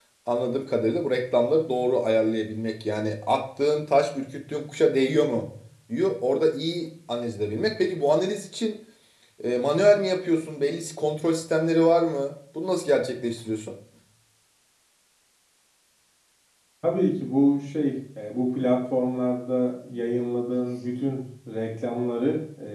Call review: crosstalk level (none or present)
none